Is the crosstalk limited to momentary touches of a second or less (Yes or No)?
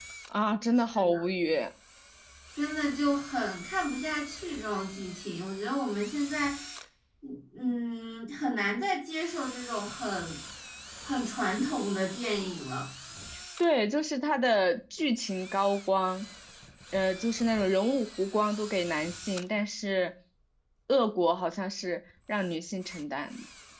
Yes